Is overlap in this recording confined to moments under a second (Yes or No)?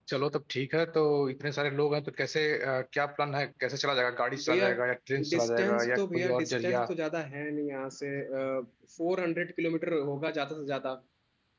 No